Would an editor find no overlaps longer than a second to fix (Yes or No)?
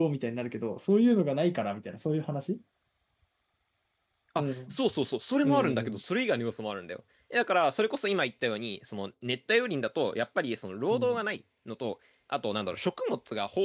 Yes